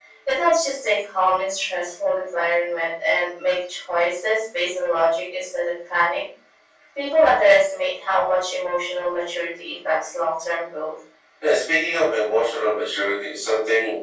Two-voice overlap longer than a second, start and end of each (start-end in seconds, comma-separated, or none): none